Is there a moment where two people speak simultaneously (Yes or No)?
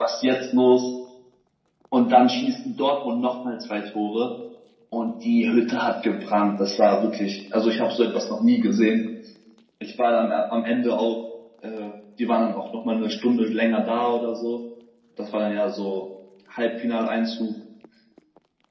No